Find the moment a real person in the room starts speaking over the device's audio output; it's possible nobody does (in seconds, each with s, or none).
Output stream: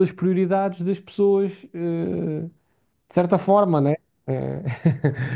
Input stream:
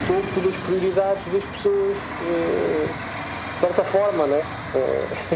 none